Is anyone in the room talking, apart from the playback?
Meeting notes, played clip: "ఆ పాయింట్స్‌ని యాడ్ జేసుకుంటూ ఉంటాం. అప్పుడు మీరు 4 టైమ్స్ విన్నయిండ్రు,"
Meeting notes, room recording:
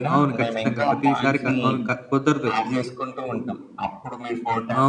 Yes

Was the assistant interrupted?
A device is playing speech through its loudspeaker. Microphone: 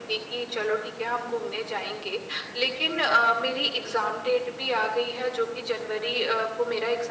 No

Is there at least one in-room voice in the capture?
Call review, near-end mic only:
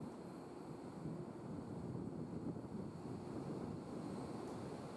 No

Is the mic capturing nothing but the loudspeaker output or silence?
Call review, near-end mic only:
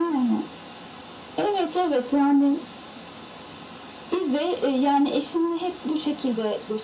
Yes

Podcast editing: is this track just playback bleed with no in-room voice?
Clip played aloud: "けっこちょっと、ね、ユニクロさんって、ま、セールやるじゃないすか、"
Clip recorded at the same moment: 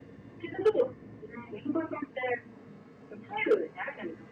Yes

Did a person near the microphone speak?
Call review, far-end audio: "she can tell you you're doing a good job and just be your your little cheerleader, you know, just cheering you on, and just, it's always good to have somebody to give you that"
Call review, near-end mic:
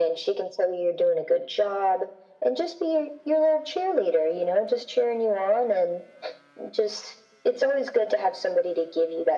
No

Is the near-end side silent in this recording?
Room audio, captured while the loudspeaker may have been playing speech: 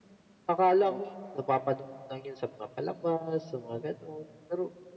No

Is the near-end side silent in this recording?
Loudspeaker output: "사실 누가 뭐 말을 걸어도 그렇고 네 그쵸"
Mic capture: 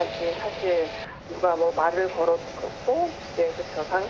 Yes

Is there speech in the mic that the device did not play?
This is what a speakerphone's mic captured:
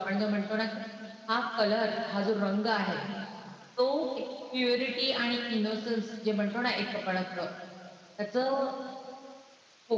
No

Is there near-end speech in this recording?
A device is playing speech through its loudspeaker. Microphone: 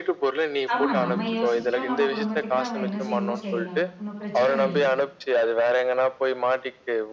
Yes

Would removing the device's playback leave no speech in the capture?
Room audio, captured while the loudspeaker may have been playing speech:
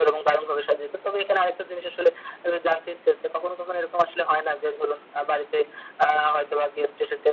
Yes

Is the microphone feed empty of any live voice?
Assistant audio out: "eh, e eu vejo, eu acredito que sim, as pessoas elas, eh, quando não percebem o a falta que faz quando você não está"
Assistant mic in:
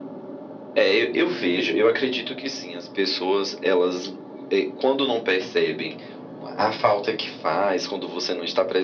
Yes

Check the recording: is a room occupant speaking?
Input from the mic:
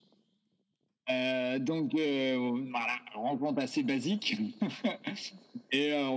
No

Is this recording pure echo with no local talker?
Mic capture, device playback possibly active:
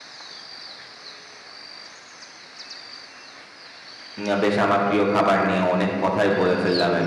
No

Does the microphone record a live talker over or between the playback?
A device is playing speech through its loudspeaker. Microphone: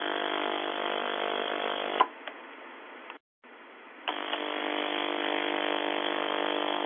No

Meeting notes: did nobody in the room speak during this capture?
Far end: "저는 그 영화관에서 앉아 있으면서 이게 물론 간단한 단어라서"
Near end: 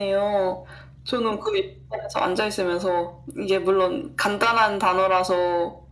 Yes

